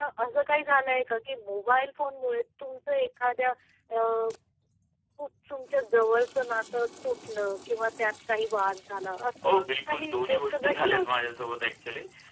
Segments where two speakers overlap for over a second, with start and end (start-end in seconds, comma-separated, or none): 9.5-11.2